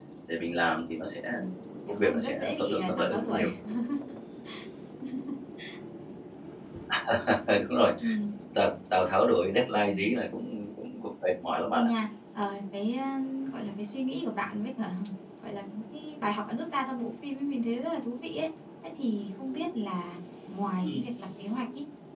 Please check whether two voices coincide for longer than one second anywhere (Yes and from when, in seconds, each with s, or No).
Yes, from 1.9 s